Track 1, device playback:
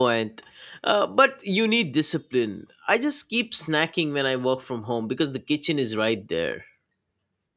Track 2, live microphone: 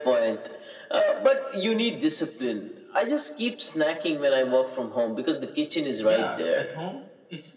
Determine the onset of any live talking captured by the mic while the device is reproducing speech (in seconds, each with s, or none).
6.0 s